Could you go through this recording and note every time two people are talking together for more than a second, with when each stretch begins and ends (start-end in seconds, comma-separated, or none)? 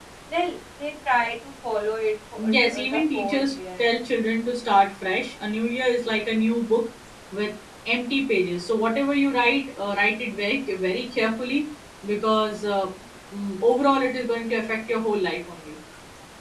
2.4-3.9